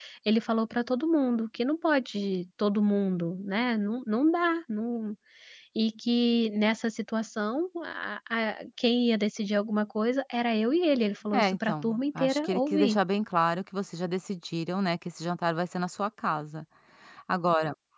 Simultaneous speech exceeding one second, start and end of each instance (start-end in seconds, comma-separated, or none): 11.3-13.0